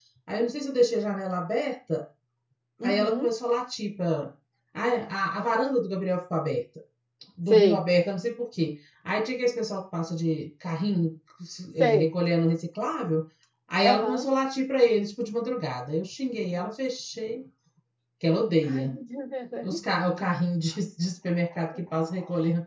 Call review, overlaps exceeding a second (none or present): none